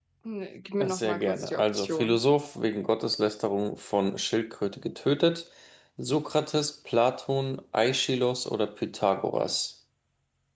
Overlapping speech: Yes, from 0.8 s

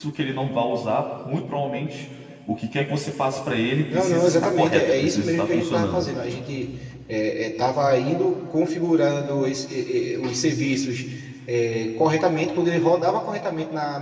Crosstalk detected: Yes, from 3.9 s

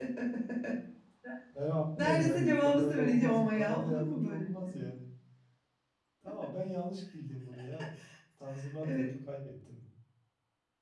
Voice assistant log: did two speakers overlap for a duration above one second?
Yes, from 2.0 s

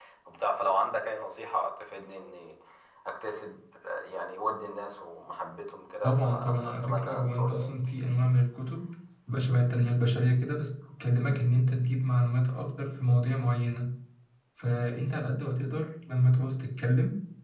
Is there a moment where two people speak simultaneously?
Yes, from 6.0 s

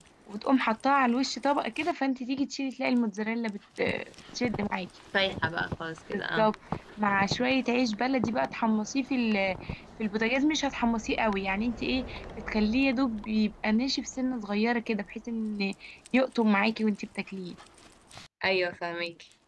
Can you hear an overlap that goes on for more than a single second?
No

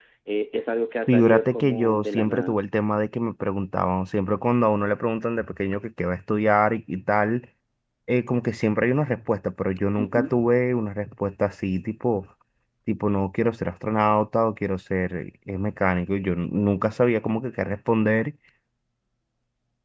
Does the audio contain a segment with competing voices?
Yes, from 1.1 s

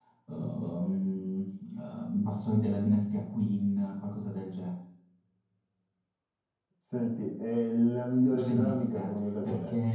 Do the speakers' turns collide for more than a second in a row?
Yes, from 8.3 s

